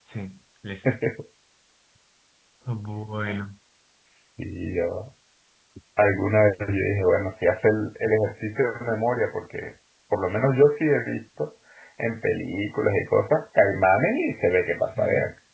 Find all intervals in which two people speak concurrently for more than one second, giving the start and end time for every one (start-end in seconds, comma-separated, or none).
none